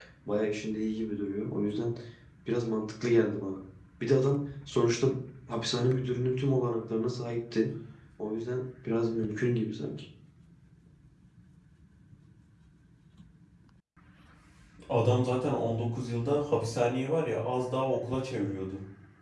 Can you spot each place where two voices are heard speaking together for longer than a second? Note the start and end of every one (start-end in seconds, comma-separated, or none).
none